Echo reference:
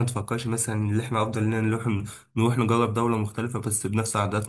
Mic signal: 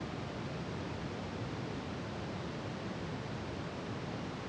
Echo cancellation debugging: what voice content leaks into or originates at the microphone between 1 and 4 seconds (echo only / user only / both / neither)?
neither